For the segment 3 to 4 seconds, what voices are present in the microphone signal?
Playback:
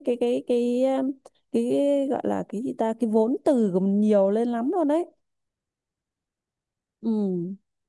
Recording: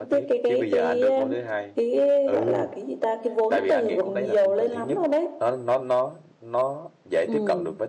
both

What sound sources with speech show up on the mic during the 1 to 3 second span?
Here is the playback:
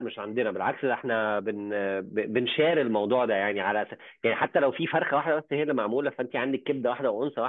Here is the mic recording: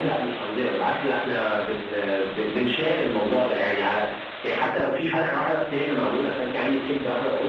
echo only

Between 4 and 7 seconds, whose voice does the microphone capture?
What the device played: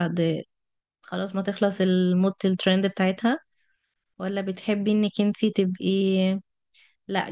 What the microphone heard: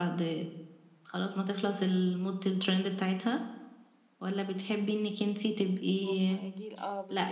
both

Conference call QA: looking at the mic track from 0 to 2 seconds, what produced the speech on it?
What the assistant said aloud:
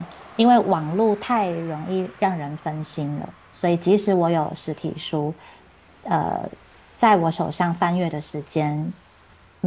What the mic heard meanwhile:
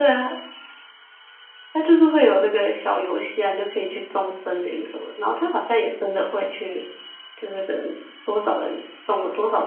user only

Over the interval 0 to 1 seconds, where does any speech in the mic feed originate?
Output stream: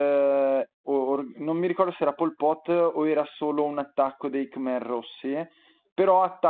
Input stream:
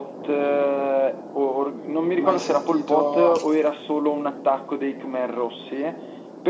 echo only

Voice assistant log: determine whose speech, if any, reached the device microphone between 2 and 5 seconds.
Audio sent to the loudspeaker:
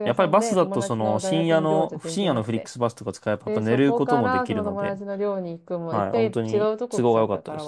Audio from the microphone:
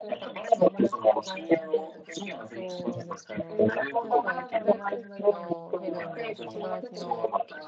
both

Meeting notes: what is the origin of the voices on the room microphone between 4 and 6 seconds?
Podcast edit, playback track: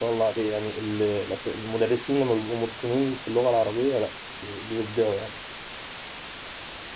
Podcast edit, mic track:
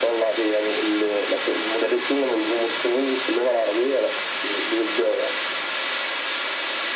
echo only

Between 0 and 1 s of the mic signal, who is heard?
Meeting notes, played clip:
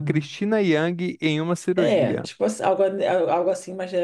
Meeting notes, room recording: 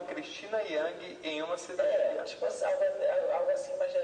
echo only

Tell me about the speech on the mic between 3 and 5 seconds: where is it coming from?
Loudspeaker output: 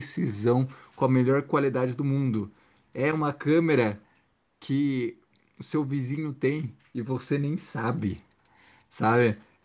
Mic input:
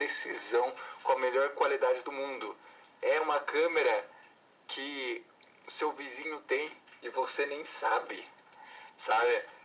echo only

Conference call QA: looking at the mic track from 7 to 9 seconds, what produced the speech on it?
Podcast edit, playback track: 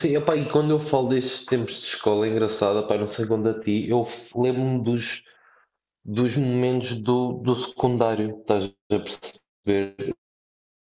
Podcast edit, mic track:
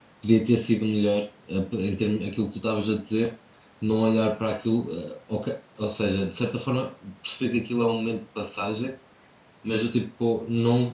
user only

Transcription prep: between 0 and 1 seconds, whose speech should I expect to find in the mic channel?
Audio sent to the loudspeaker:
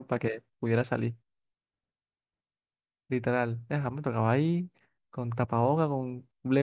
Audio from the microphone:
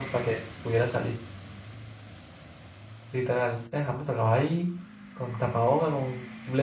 echo only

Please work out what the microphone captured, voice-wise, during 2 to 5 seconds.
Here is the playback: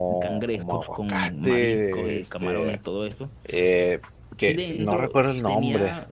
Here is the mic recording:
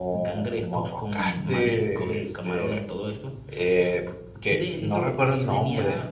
echo only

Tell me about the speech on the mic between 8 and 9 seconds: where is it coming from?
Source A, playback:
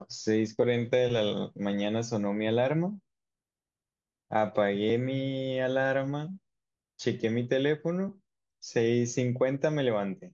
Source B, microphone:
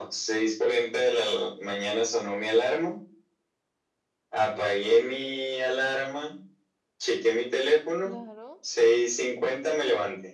both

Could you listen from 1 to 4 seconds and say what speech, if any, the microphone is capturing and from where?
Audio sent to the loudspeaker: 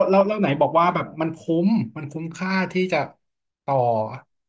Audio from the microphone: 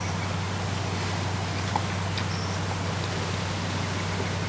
neither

